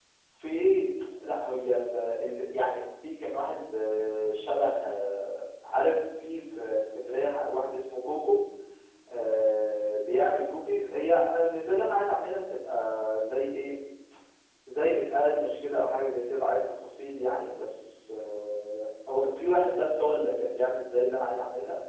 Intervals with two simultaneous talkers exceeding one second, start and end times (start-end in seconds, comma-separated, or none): none